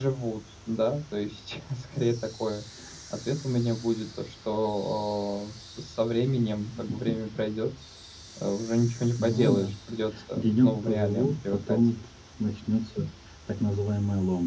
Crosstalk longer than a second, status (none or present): present